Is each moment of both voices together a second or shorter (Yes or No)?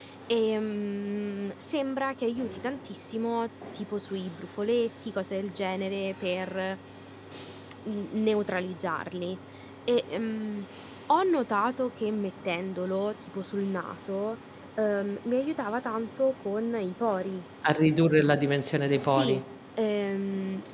Yes